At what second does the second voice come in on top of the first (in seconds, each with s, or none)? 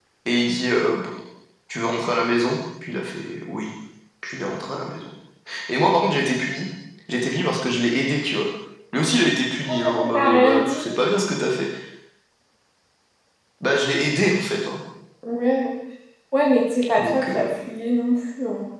9.7 s